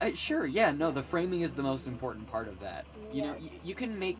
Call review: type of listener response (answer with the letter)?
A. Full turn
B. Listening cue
B